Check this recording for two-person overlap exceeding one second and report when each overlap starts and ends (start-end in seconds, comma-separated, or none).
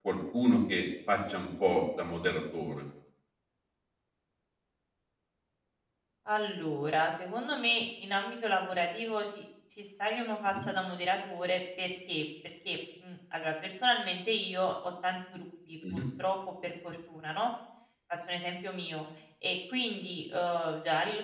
none